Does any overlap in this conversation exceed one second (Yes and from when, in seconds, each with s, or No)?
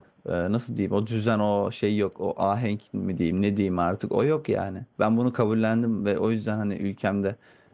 No